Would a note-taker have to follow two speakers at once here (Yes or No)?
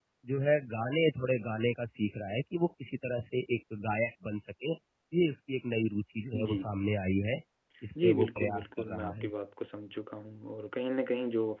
Yes